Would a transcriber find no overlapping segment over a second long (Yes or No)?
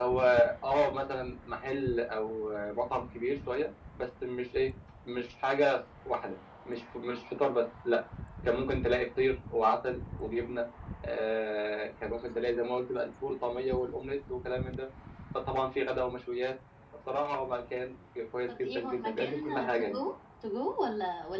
No